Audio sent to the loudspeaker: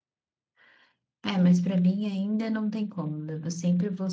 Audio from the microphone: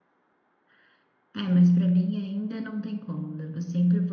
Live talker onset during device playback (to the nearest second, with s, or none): none